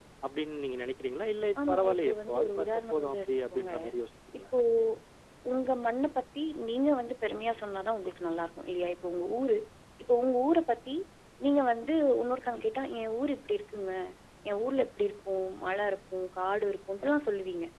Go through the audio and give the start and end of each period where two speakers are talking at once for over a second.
1.7-3.7

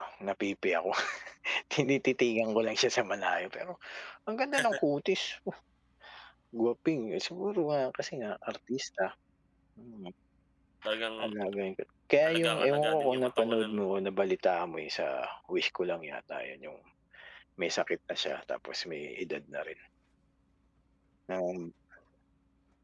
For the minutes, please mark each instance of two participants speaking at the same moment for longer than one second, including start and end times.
12.2-13.8

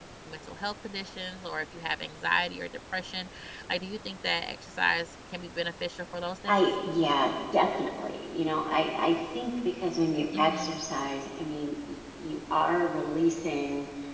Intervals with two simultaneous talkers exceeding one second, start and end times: none

